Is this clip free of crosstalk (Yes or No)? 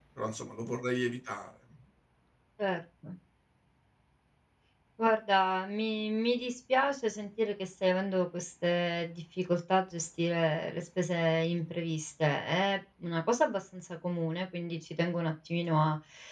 Yes